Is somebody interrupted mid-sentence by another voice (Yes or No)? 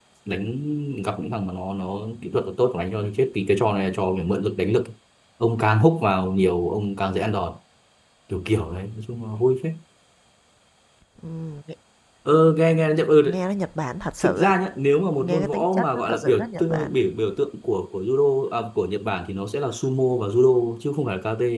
Yes